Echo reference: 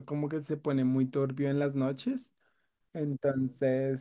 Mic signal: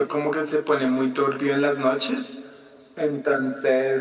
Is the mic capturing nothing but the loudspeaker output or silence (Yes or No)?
Yes